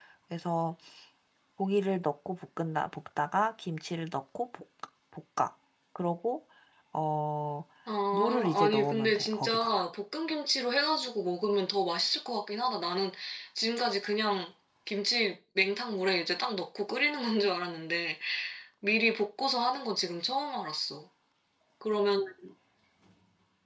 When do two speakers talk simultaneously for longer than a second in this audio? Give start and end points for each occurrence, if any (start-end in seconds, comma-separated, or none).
8.1-9.9